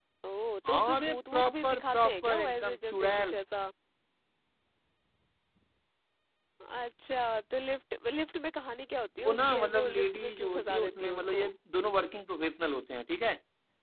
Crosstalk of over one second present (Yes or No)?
Yes